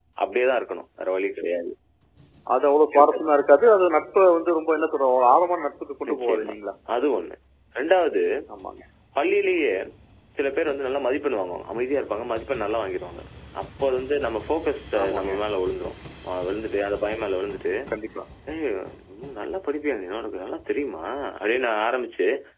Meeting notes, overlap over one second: none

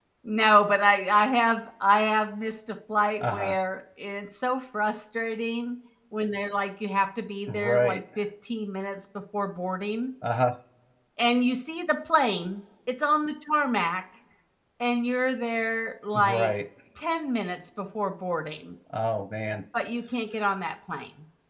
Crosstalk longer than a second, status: none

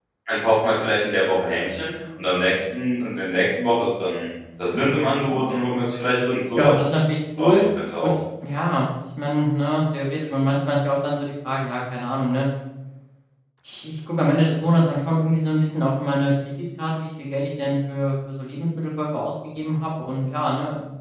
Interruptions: present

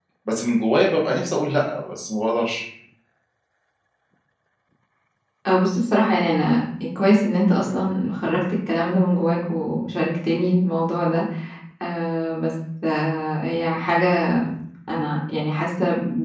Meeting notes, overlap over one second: none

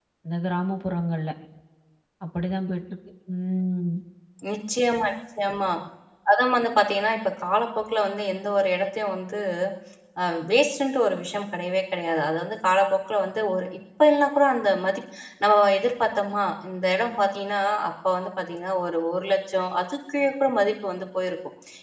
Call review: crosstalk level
none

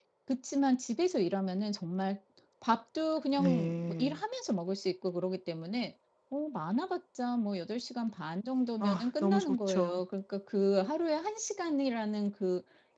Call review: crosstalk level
present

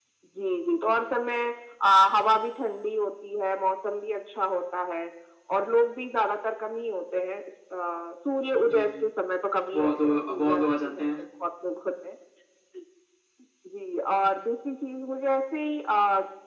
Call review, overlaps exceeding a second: present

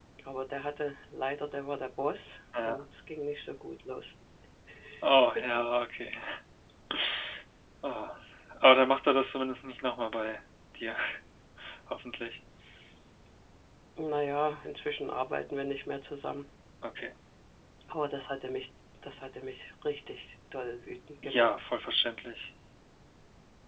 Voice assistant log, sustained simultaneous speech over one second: none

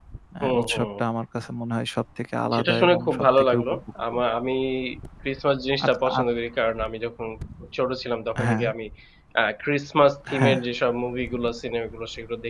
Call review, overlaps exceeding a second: present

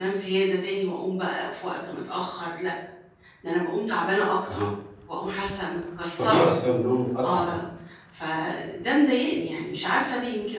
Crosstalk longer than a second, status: none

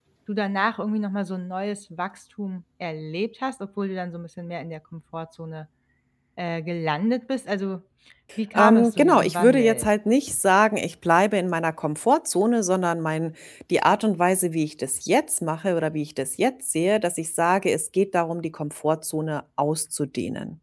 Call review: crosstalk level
present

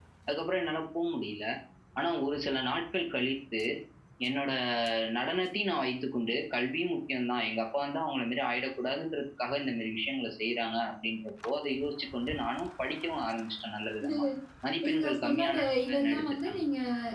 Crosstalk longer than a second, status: present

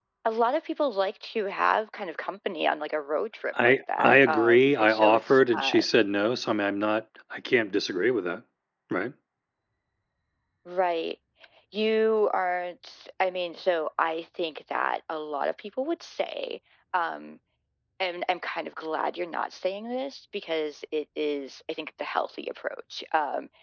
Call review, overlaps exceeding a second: present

